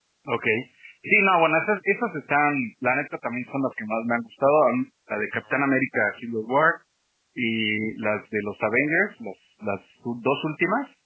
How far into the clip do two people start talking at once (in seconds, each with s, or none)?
none